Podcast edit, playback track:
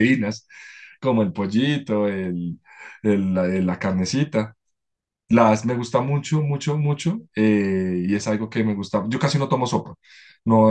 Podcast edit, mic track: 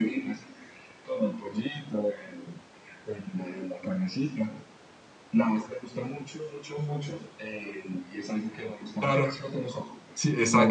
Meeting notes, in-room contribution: present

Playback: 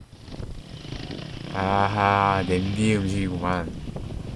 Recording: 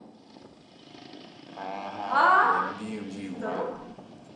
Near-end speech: present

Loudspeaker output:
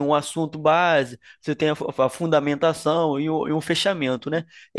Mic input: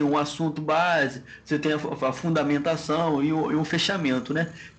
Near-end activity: none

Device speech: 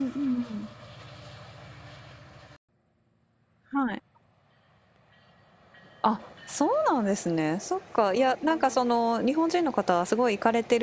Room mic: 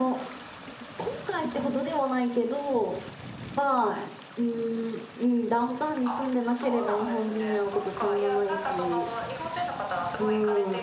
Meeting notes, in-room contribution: present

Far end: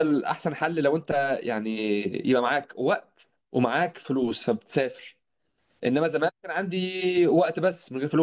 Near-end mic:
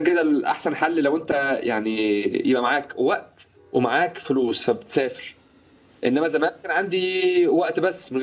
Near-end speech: none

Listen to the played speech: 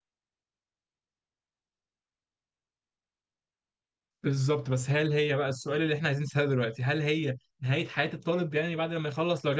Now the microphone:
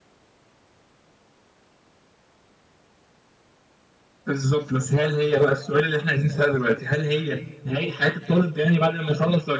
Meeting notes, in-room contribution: none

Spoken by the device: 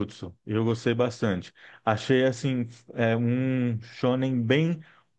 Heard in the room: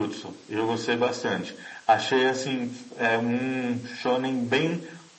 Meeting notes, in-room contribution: none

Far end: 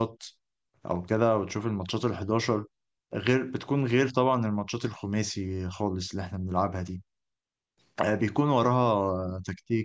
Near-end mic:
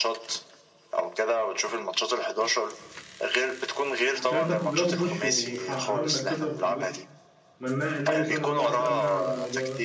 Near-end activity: present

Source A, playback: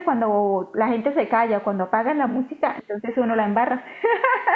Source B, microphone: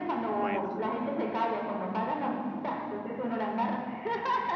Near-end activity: present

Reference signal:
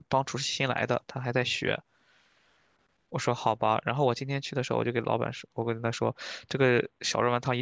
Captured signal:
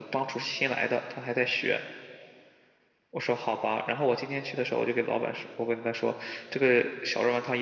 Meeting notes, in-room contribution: none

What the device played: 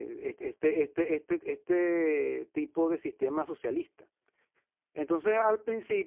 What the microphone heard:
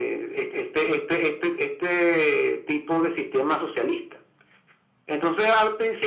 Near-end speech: none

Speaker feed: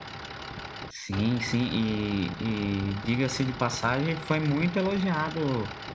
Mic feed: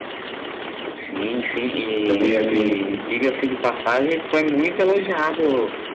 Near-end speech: present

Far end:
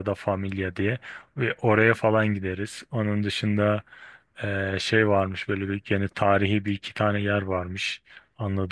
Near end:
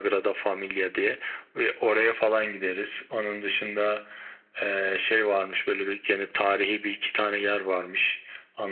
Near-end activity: none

